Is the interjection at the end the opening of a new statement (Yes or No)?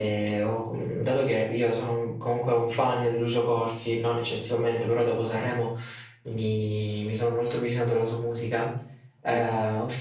No